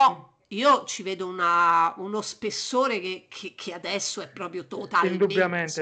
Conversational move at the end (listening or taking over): taking over